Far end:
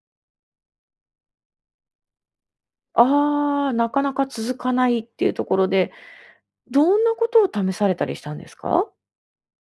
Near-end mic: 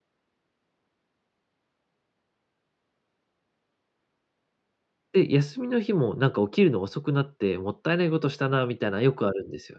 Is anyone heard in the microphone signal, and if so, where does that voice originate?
user only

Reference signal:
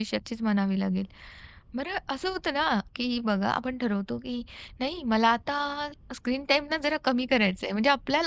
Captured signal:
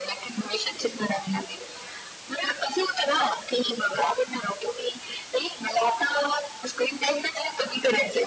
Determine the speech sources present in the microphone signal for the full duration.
echo only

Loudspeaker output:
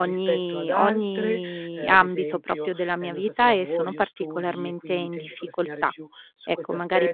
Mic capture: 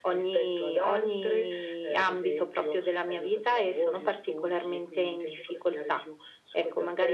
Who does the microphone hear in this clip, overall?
echo only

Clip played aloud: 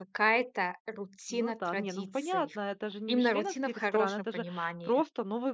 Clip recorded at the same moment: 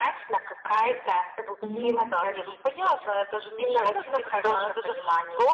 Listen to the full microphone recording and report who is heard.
both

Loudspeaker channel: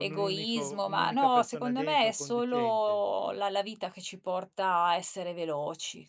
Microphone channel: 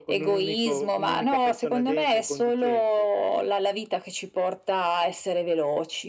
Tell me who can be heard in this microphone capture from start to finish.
echo only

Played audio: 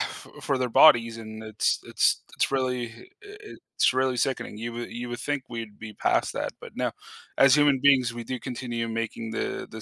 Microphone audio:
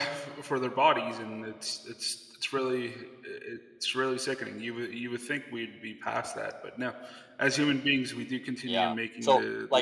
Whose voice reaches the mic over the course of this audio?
both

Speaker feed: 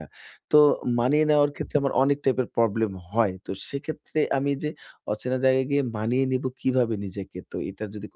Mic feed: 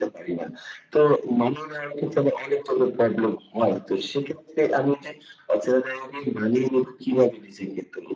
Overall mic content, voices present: echo only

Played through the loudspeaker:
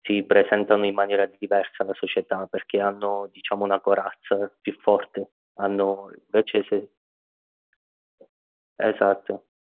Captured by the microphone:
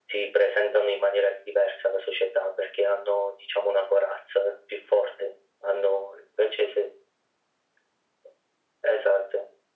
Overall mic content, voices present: echo only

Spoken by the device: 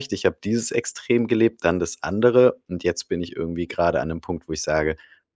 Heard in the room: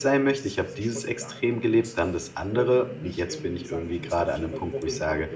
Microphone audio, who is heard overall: both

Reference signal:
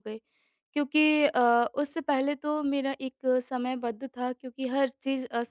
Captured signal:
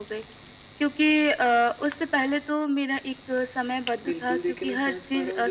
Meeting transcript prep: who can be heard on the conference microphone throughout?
both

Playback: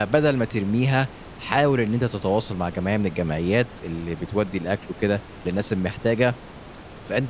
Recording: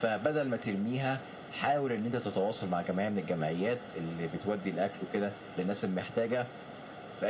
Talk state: echo only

